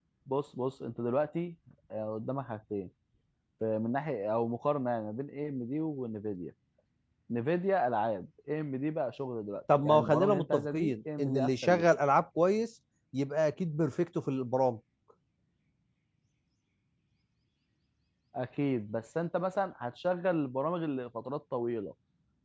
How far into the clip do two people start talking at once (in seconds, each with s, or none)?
9.7 s